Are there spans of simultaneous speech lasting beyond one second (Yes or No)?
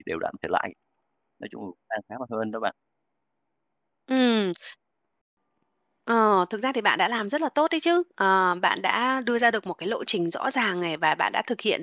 No